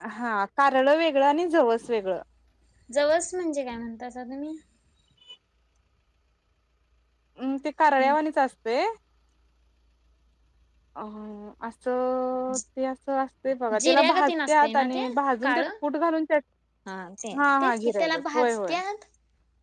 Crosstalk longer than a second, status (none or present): present